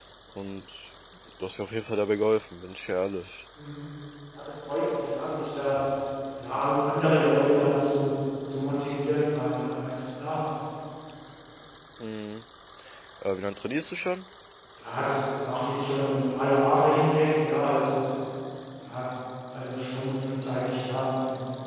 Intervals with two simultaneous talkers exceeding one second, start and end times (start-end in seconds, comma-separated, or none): none